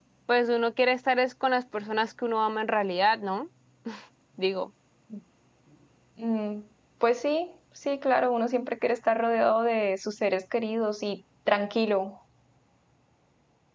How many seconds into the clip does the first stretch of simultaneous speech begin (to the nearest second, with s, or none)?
none